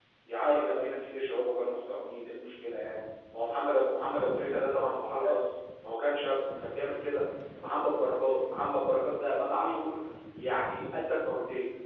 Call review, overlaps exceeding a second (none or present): none